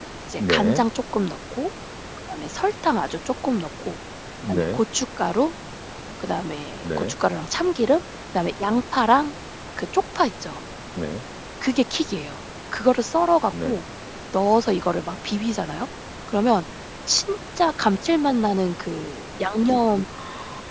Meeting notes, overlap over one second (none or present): none